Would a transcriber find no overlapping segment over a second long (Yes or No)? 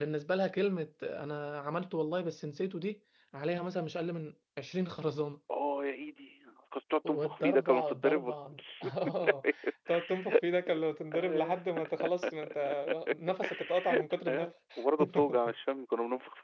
No